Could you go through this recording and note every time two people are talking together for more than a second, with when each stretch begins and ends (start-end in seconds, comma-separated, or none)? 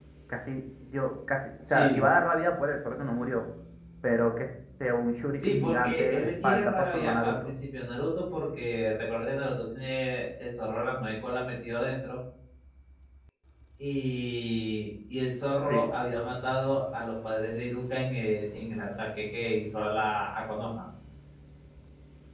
5.4-7.5